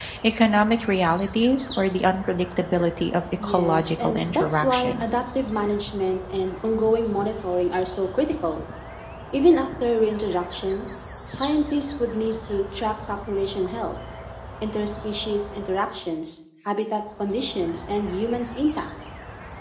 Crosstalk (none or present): present